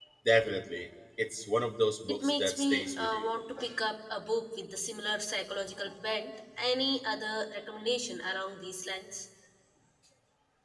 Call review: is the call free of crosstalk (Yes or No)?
No